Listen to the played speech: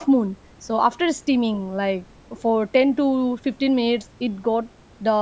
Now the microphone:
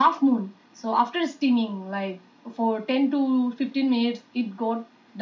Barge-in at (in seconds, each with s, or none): none